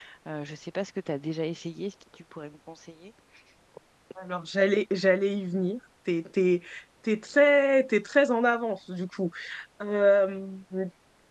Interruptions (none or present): none